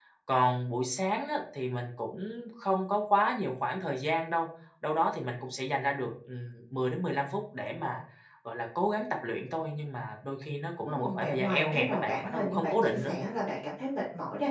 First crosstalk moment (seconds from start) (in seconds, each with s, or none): 10.8 s